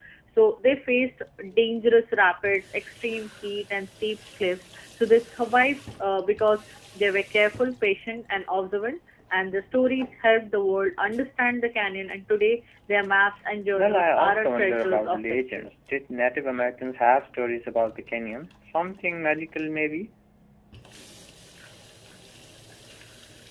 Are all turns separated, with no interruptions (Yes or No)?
No